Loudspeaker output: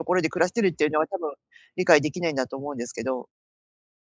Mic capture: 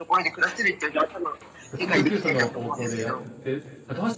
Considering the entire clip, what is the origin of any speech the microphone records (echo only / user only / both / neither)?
both